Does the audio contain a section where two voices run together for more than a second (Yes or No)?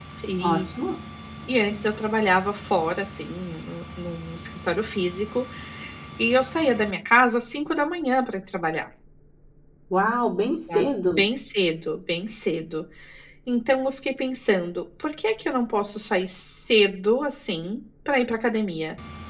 No